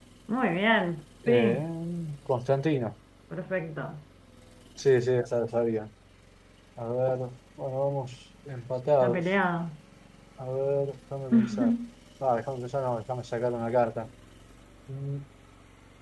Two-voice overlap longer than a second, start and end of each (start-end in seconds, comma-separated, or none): none